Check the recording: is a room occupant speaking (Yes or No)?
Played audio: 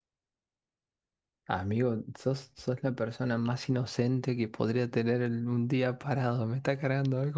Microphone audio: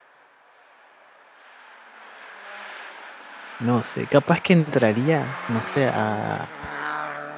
Yes